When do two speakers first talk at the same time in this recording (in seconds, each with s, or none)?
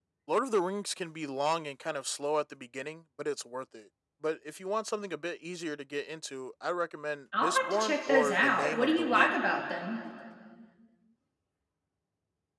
7.3 s